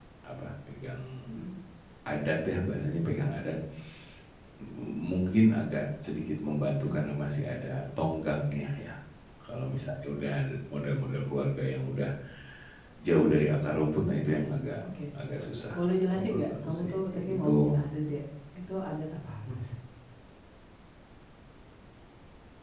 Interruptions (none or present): present